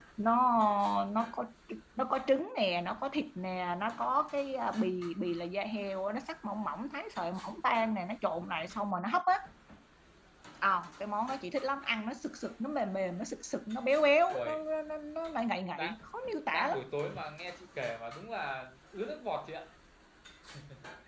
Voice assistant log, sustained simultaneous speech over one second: none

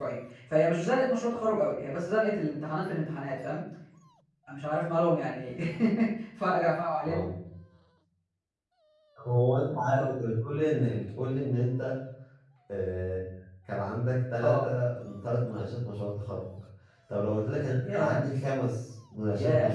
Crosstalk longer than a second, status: none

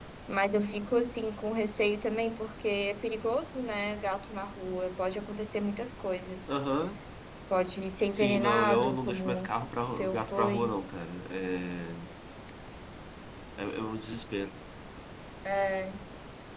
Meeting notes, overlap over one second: present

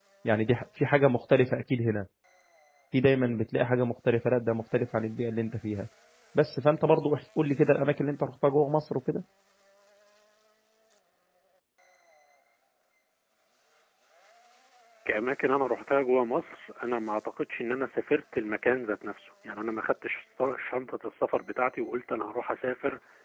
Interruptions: none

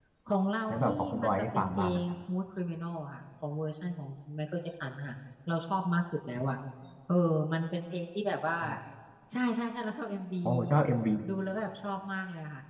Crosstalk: present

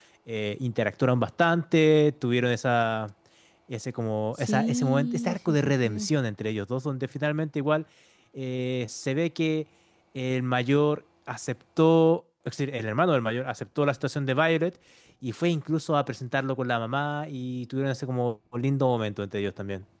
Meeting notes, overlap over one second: present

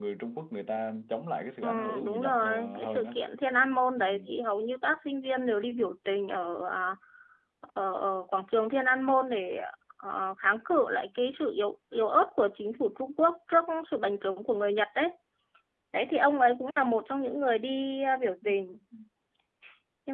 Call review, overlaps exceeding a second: present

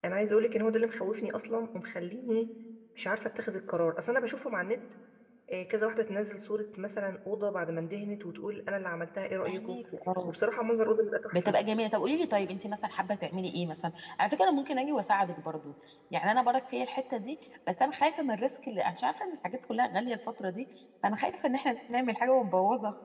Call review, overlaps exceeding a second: none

